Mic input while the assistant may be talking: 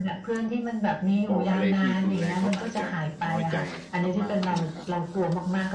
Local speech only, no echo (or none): บอกอะไรที่รุนแรง เขาอาจจะน้อยใจมาก ๆ ใช่ไหมครับ?